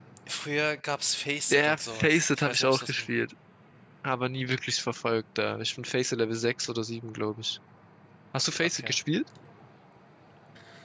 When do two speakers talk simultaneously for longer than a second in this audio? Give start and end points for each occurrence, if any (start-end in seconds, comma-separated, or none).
1.5-3.1